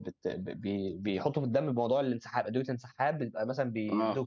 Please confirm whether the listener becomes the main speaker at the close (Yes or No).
No